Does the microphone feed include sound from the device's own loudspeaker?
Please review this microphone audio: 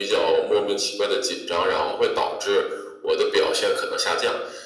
Yes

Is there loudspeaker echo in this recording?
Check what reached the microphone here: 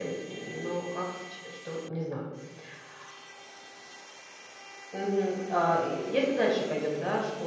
No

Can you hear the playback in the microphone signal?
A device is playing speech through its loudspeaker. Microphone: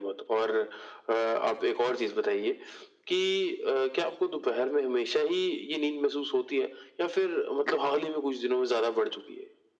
Yes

